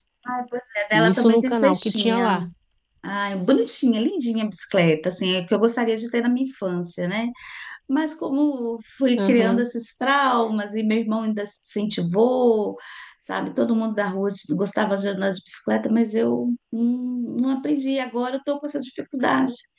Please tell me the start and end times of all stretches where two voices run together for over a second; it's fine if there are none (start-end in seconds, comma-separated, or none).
0.9-2.4